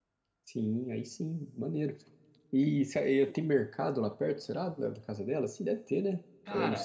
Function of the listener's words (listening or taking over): taking over